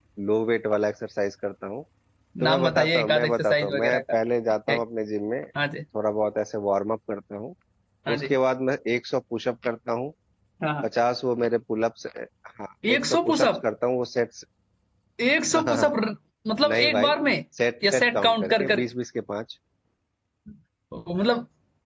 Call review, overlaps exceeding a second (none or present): present